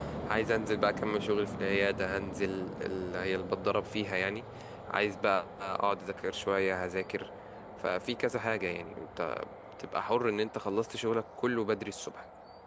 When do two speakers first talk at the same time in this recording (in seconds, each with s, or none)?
none